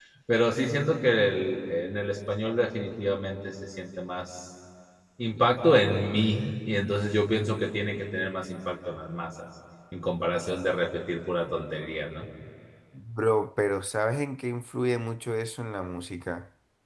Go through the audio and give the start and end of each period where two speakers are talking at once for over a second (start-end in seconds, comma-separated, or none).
none